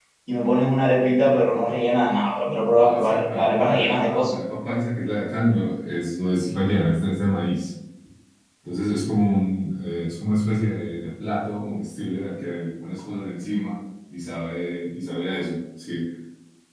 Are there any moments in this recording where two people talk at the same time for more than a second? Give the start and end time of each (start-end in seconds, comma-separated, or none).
2.7-4.3